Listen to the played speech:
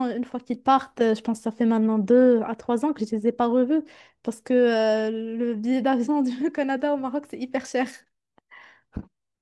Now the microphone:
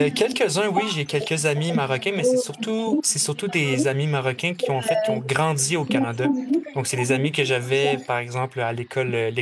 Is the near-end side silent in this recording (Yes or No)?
No